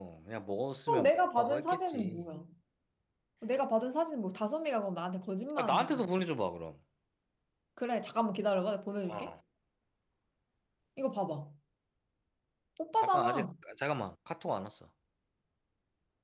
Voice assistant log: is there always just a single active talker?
No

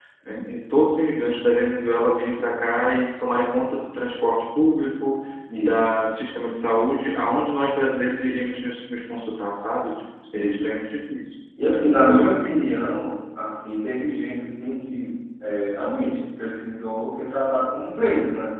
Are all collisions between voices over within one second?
Yes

